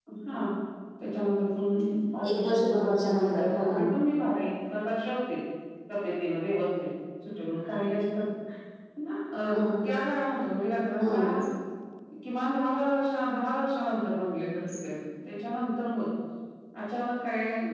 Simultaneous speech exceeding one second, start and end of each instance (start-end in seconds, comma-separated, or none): 2.4-3.8